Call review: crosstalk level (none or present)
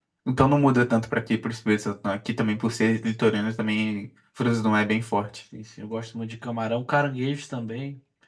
none